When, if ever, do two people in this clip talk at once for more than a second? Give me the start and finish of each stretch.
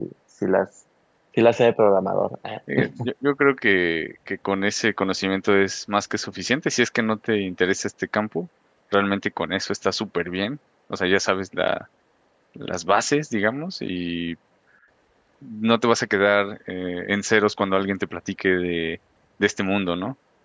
none

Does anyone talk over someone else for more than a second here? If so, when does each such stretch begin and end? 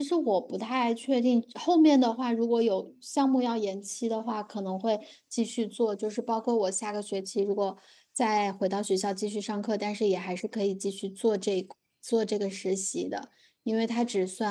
none

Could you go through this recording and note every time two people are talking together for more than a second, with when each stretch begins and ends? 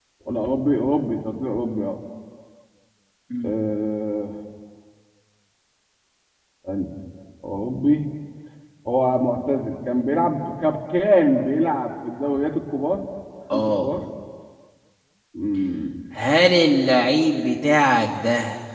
none

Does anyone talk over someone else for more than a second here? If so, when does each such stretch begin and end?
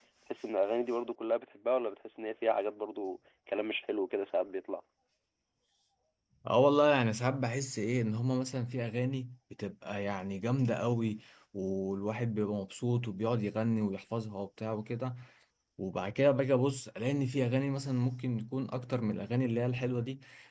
none

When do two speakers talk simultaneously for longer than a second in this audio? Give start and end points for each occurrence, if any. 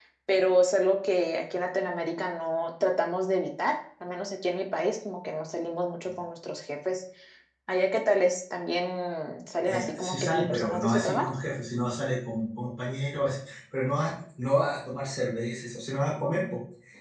9.6-11.3

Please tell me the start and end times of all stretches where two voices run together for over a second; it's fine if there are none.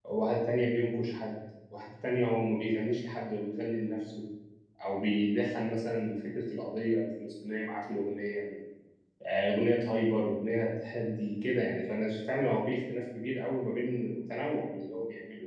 none

